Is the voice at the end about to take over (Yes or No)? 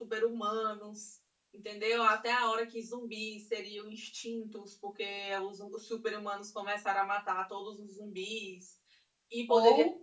No